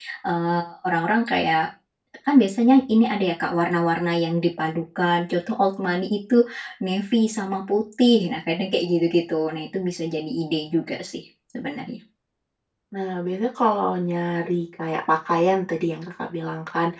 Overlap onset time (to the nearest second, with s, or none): none